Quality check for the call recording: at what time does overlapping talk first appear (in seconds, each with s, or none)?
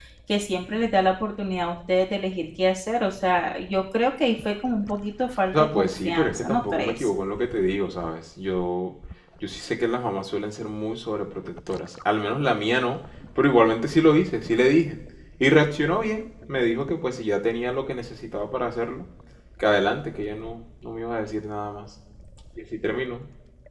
5.5 s